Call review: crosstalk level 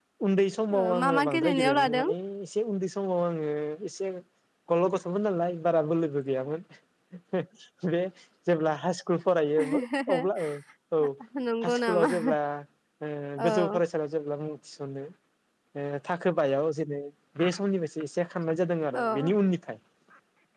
present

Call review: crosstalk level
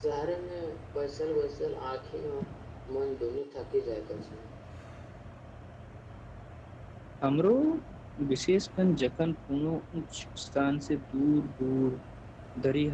none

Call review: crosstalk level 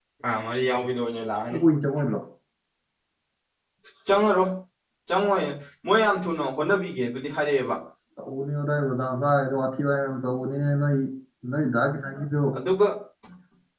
none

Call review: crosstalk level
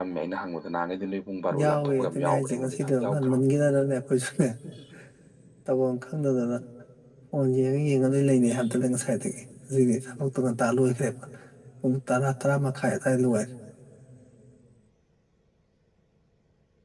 present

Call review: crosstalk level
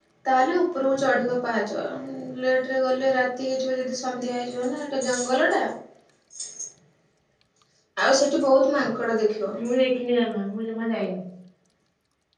none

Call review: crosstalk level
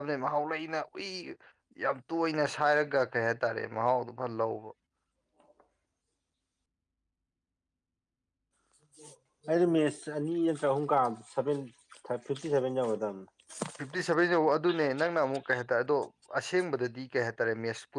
none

